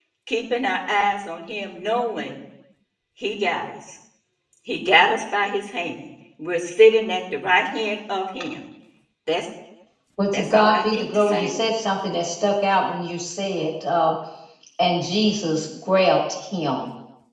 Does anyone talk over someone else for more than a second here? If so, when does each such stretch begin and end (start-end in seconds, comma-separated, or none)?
10.3-11.5